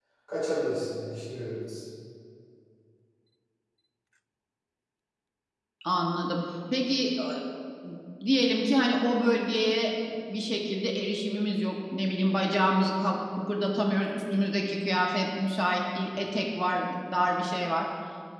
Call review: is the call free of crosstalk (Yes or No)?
Yes